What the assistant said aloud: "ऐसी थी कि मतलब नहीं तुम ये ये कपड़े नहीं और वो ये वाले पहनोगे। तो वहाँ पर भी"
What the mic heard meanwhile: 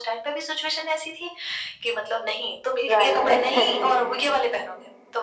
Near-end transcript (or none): राइट, एग्ज़ैक्टली।